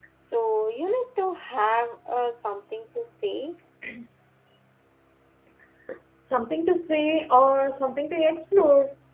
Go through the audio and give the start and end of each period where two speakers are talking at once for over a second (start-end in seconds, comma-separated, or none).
none